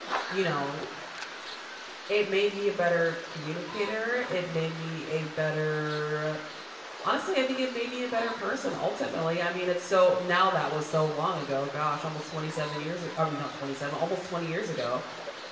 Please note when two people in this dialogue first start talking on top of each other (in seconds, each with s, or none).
none